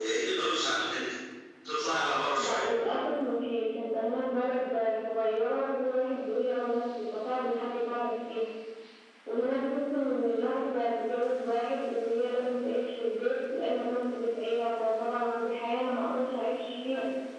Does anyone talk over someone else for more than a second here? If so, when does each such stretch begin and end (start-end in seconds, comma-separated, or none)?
none